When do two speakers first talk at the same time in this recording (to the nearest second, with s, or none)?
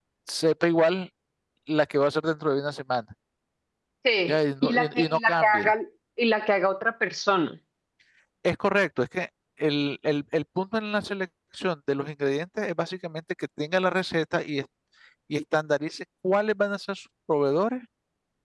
4 s